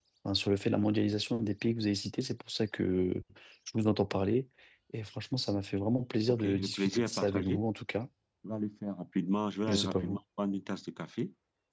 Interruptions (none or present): present